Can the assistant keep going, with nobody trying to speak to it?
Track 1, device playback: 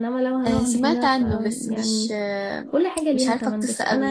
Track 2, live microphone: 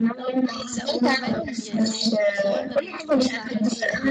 No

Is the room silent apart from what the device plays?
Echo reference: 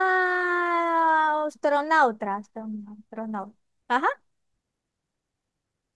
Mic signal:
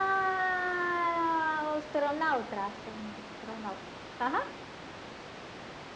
Yes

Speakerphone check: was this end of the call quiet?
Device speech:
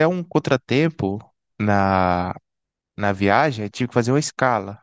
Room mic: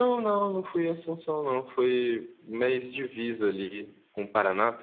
No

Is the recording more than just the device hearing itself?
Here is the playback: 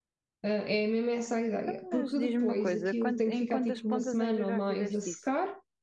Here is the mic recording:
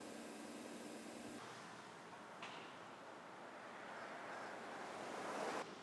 No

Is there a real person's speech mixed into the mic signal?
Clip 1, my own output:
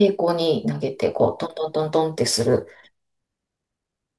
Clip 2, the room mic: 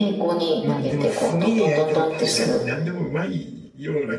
Yes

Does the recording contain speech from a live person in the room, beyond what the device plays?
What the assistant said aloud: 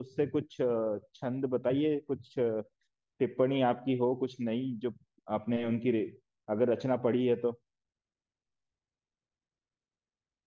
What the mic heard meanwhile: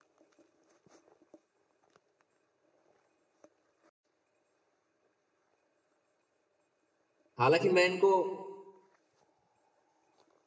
Yes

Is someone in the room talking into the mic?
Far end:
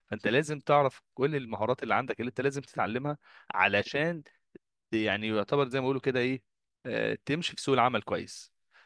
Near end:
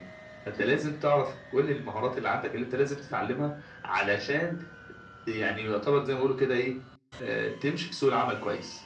No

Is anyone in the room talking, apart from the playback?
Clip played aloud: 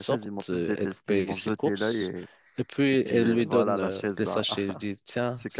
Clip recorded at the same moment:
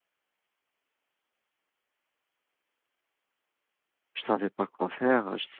Yes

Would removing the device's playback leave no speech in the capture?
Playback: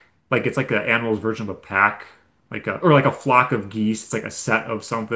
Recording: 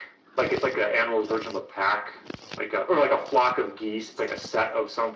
Yes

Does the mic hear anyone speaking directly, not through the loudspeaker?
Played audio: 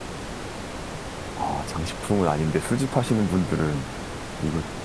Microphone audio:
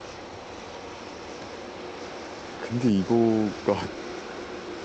Yes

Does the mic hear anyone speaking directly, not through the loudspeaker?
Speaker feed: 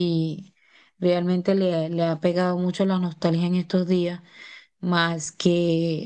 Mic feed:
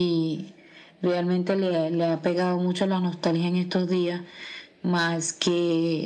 No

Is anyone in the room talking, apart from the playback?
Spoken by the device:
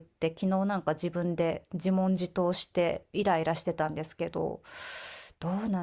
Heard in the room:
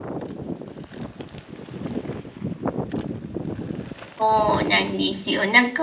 Yes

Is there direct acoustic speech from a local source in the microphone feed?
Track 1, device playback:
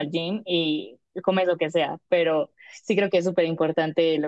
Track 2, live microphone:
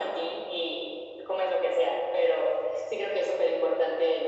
No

